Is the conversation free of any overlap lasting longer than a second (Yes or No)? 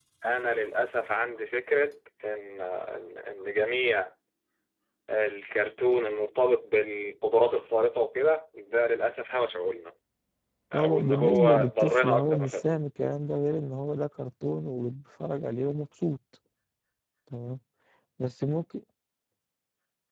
No